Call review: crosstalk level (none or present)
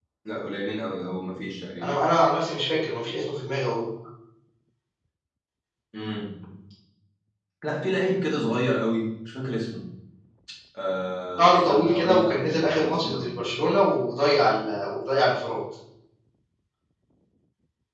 present